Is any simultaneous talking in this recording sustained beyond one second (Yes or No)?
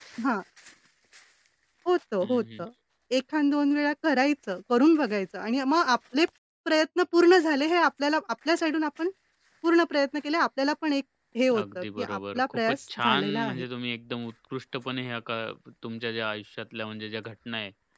Yes